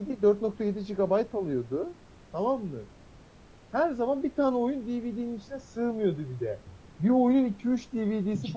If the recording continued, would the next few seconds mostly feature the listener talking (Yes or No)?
Yes